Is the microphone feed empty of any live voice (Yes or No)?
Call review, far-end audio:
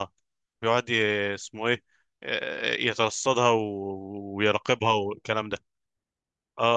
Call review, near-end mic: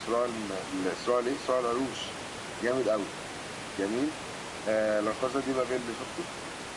No